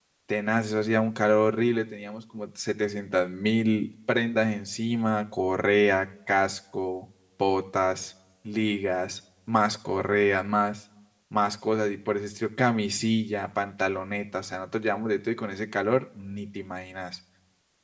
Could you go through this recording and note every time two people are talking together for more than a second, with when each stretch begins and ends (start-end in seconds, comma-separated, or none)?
none